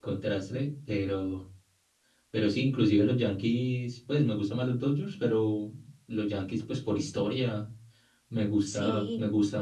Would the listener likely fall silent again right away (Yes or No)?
Yes